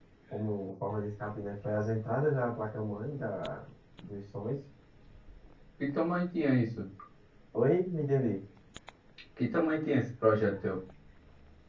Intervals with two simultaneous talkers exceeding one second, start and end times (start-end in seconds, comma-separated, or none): none